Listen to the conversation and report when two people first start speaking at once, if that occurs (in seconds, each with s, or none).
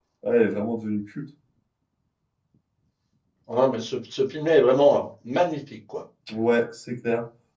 none